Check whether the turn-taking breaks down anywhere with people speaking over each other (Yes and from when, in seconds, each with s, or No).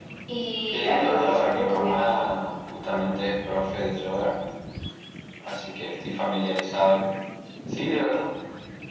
Yes, from 0.7 s